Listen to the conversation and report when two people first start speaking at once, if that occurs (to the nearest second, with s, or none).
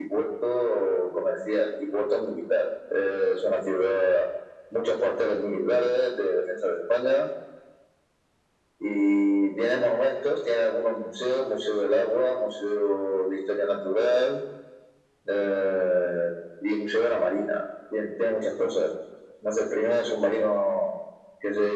none